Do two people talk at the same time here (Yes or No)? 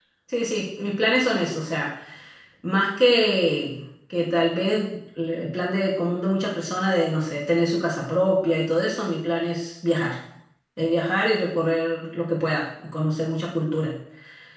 No